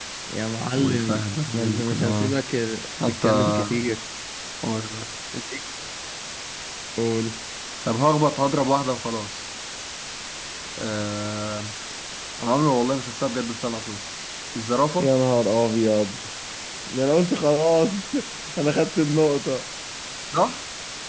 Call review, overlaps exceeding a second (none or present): present